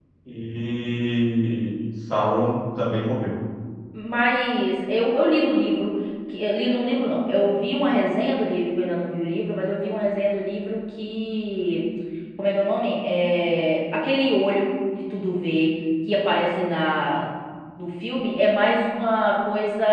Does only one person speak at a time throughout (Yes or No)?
Yes